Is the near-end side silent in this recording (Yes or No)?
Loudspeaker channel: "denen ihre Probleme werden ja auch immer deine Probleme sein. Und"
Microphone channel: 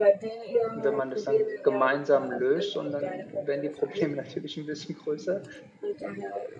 No